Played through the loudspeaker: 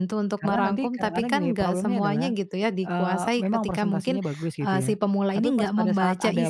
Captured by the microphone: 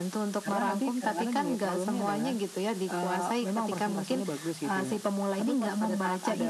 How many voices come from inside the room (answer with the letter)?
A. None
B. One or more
A